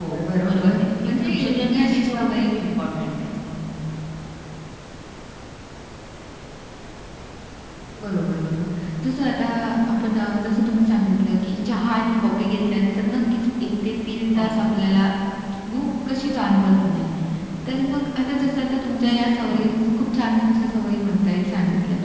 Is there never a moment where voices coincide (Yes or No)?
No